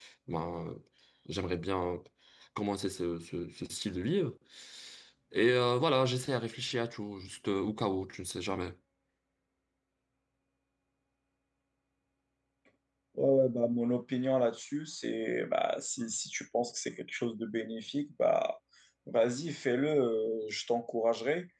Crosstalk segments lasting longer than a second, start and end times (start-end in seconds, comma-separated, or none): none